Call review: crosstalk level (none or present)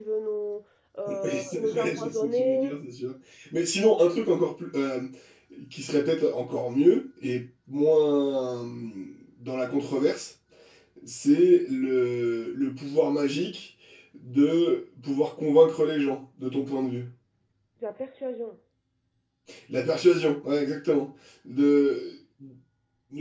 present